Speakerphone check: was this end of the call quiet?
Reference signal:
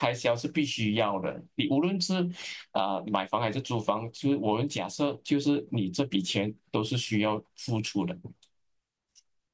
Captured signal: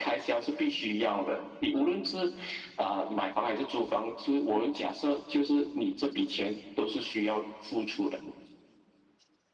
Yes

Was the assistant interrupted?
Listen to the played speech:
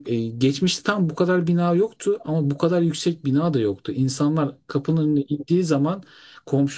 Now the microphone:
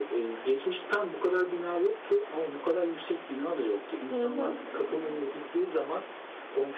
Yes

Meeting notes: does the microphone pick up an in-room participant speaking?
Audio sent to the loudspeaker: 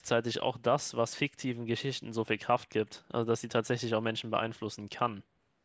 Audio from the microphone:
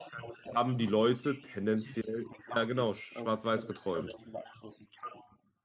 Yes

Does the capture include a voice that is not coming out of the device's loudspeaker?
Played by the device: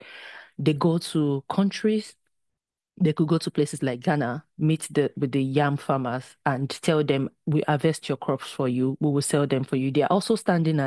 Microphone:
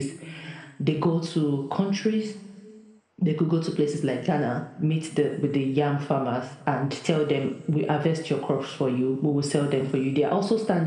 No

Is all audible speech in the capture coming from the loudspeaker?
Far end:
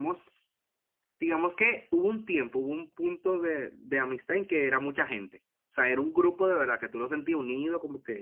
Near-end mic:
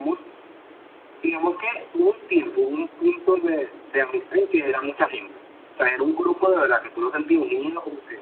Yes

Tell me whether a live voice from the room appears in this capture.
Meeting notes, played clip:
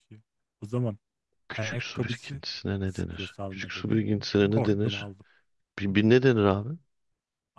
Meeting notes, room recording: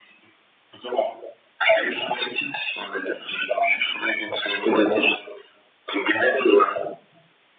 No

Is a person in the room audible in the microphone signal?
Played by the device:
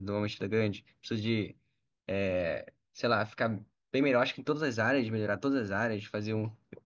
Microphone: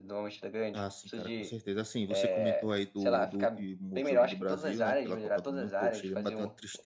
Yes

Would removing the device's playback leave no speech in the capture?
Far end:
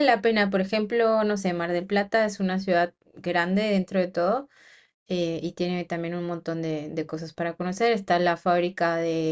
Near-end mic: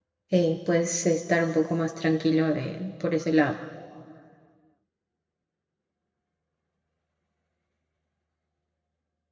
No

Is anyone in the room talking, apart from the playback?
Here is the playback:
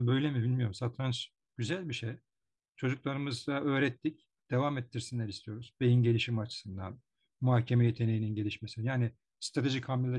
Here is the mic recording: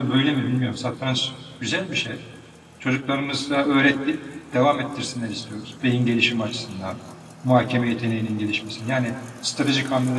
No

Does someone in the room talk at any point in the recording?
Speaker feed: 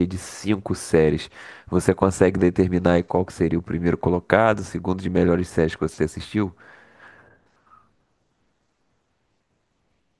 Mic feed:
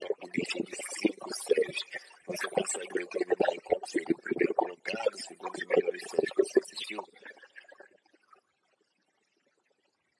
No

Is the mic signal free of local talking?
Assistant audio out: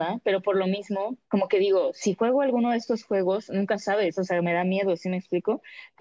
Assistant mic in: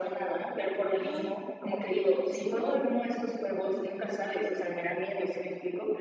No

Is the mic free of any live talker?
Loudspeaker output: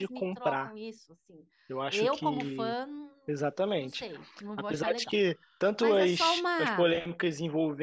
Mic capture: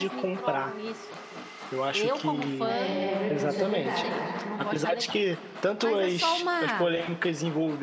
No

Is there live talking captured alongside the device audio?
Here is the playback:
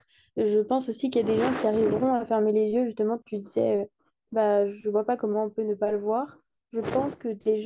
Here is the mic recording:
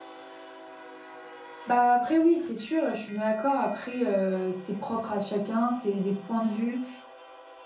Yes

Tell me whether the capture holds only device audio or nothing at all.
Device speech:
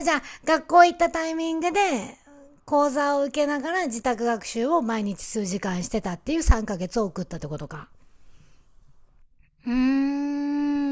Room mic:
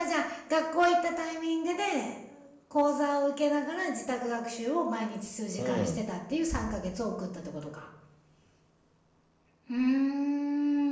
No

